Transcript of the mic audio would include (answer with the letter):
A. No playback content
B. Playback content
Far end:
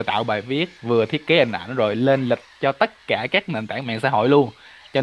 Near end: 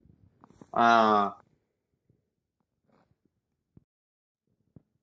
A